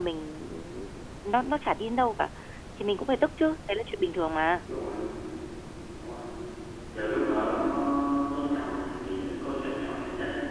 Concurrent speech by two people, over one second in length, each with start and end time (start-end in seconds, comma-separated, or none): none